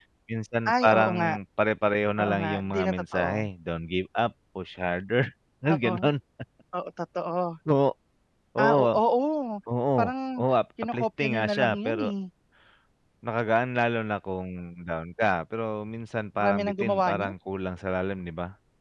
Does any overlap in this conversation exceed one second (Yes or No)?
Yes